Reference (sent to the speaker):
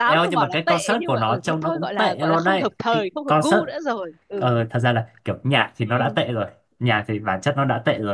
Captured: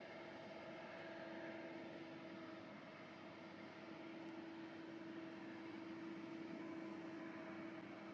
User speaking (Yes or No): No